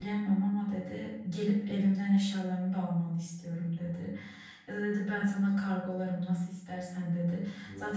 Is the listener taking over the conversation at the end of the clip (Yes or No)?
No